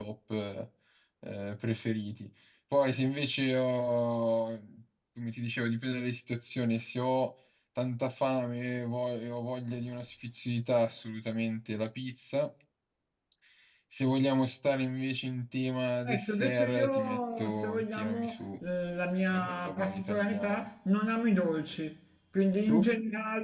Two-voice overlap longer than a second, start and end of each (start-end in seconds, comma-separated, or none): 16.1-18.4, 19.3-20.6